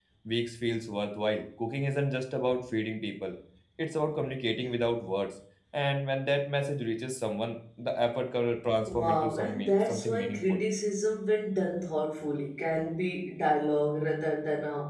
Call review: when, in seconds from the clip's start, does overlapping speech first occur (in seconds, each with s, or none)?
8.9 s